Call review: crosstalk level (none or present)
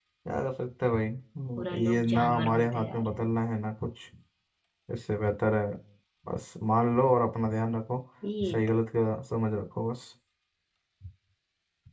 present